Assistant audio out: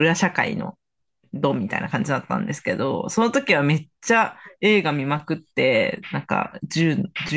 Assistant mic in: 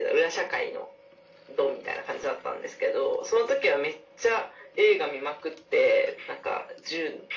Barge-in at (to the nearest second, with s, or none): none